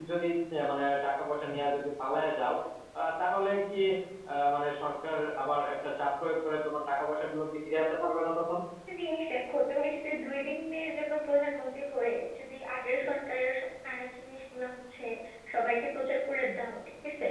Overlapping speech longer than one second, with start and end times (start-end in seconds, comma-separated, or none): none